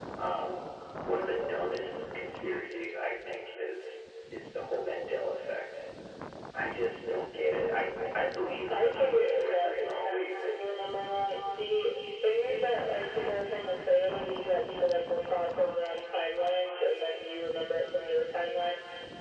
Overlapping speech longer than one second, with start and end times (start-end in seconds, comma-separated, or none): 8.7-10.6